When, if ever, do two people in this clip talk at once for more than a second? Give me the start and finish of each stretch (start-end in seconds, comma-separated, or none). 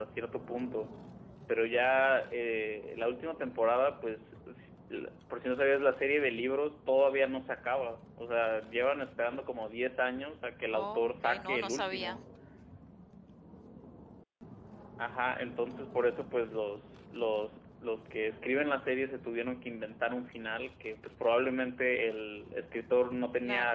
10.7-12.2